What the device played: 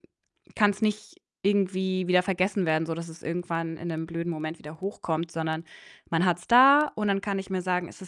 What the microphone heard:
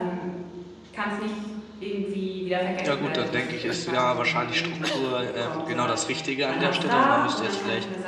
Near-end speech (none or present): present